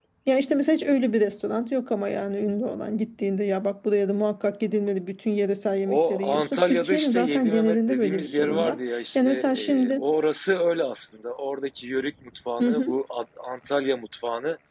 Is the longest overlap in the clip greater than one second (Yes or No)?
Yes